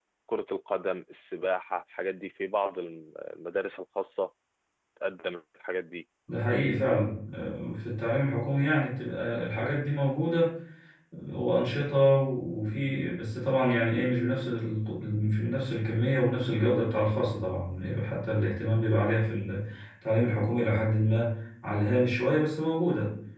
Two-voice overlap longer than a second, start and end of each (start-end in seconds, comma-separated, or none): none